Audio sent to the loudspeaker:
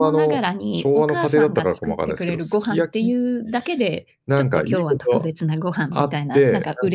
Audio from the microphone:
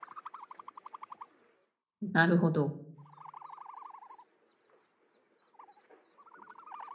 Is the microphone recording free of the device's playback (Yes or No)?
Yes